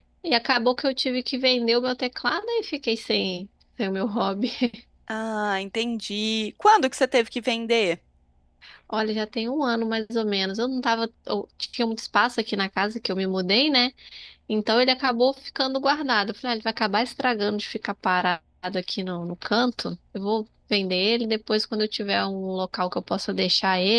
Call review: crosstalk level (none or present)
none